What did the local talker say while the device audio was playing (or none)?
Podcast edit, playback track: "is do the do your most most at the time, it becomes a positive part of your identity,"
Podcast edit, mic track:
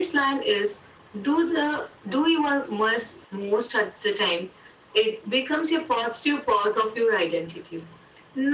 none